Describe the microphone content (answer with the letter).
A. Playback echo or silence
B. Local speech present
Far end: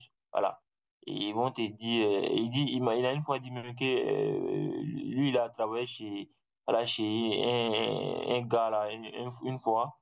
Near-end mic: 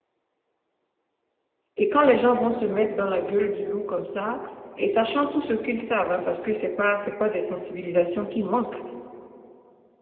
B